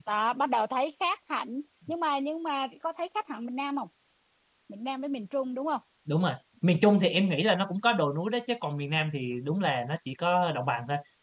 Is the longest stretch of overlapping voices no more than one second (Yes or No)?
Yes